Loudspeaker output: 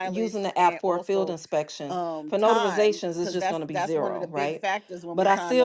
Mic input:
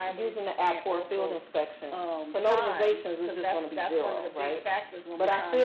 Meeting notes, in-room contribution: none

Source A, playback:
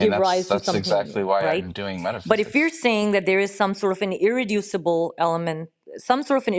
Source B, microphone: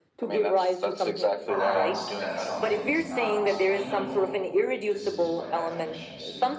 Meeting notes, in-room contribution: present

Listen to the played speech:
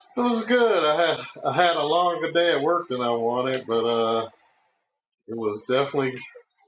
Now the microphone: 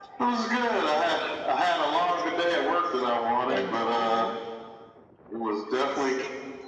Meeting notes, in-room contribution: present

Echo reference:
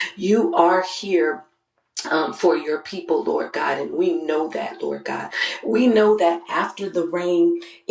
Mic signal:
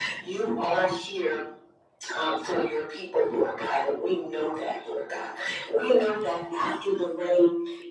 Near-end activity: none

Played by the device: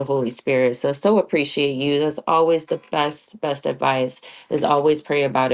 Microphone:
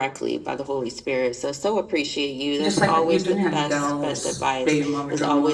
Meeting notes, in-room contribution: present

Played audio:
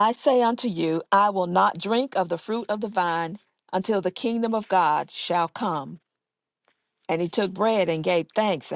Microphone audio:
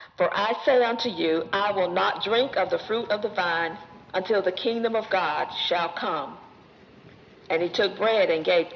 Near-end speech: none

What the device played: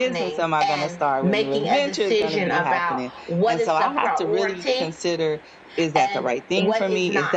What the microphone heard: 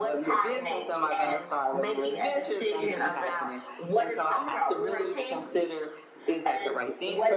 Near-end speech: none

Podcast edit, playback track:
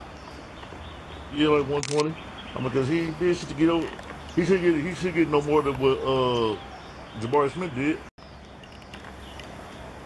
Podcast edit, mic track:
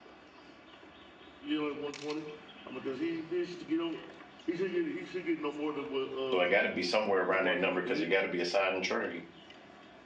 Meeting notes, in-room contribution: present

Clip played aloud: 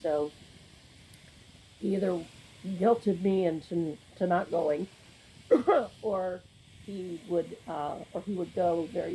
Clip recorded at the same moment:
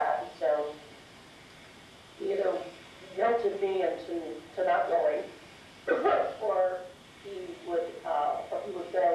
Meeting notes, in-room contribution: none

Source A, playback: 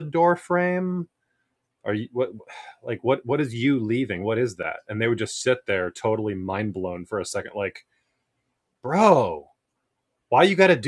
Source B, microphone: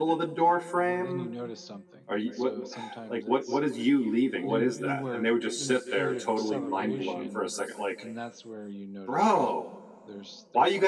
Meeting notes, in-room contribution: present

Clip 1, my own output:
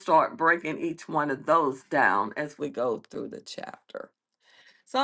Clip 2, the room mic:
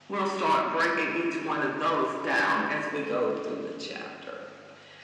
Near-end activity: none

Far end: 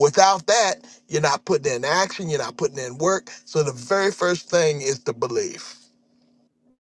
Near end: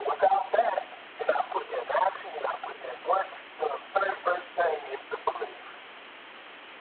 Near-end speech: none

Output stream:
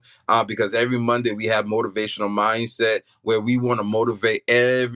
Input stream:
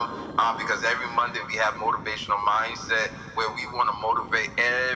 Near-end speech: none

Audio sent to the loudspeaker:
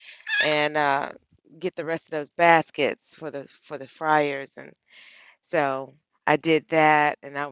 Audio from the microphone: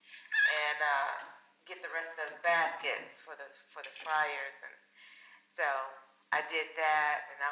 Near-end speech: none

